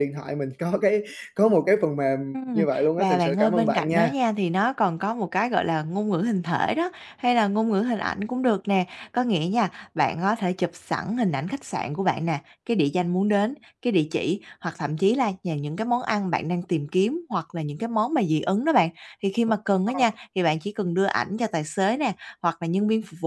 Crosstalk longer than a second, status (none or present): present